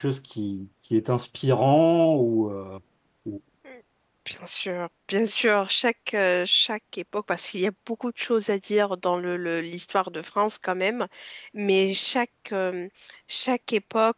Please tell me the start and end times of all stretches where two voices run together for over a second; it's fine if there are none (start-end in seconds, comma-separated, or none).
none